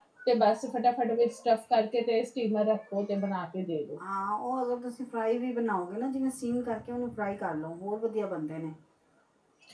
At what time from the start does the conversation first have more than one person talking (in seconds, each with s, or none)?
none